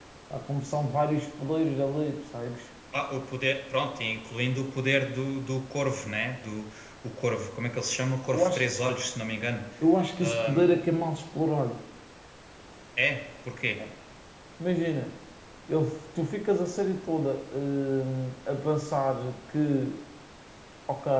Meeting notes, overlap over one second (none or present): none